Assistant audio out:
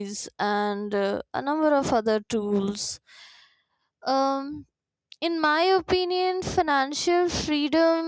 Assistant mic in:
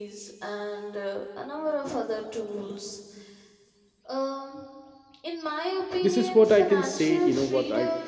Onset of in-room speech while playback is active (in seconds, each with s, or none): 6.0 s